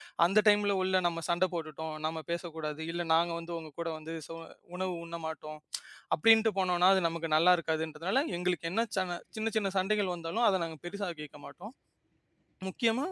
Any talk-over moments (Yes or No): No